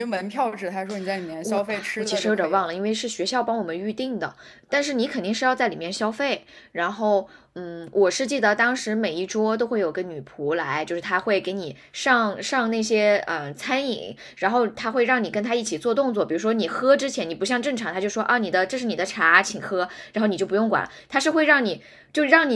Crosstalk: present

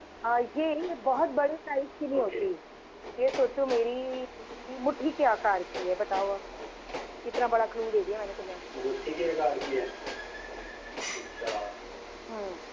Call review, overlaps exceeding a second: none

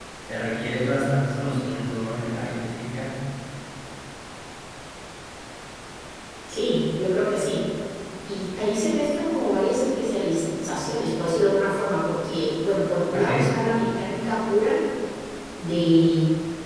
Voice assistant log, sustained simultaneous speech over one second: none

